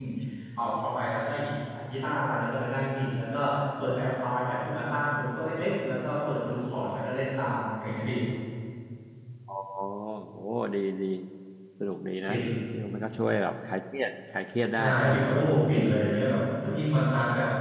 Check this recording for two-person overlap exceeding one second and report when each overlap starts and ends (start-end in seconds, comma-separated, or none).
none